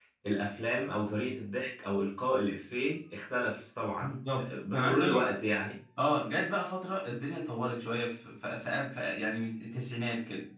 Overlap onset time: 4.0 s

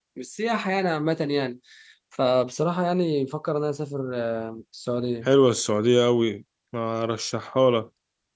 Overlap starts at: none

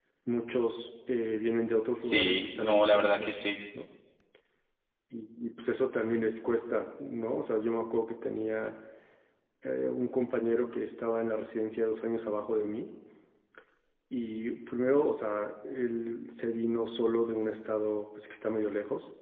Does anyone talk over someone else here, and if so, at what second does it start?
2.0 s

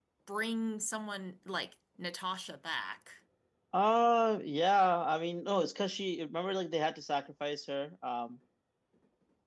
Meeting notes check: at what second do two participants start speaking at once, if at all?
none

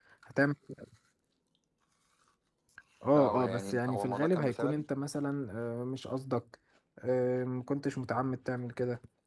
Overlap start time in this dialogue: 3.1 s

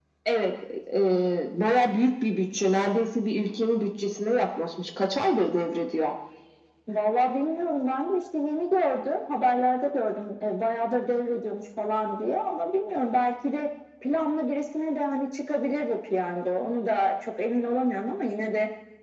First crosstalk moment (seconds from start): none

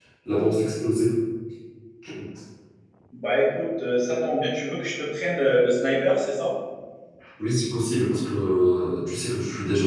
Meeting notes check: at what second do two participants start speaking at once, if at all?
none

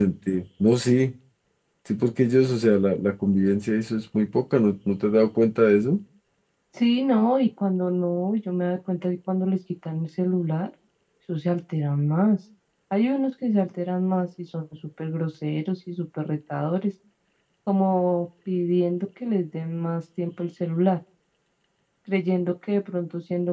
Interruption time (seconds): none

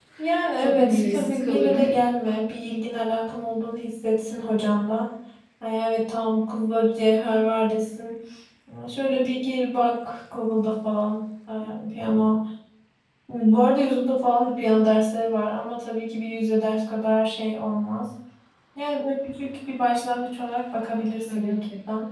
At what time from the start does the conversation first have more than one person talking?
0.6 s

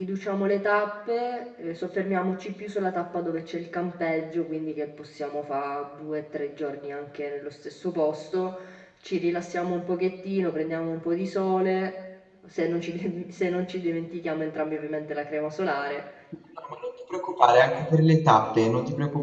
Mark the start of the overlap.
none

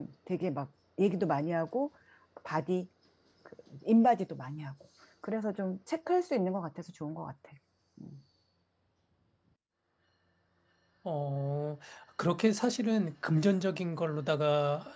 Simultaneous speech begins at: none

